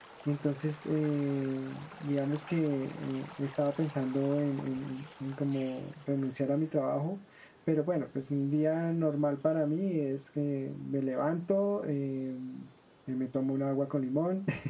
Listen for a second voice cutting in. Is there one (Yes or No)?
No